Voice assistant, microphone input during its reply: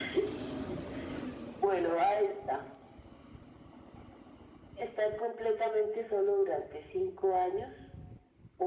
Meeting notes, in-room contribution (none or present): none